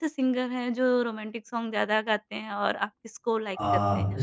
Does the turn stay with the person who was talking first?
No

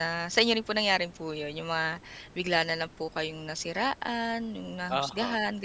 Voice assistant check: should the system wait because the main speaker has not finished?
No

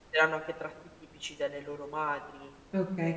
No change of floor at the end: No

